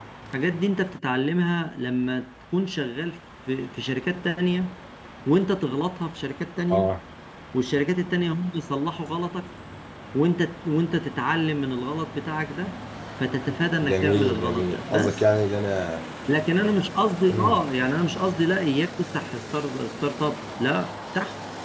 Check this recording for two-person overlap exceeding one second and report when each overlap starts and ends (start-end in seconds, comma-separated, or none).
13.8-15.2